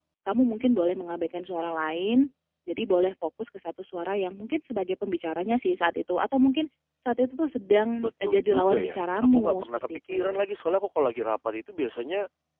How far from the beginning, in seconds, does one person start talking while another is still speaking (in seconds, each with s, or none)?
8.0 s